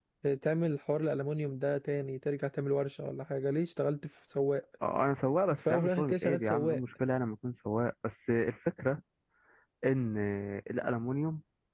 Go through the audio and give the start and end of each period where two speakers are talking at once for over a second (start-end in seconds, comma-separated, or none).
5.5-6.8